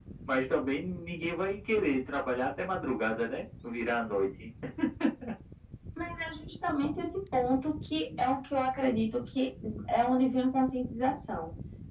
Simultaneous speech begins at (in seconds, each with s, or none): none